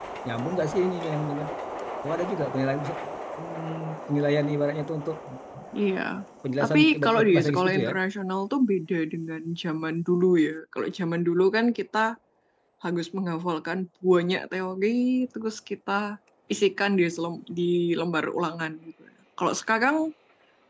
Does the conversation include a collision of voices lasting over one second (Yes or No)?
Yes